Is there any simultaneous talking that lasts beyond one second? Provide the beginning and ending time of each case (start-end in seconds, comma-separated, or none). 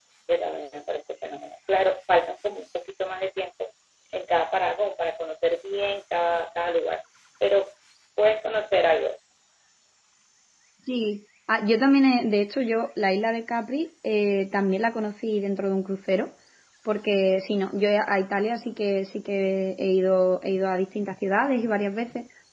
none